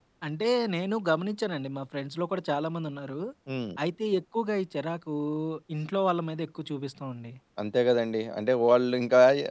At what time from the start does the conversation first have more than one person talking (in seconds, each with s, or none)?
none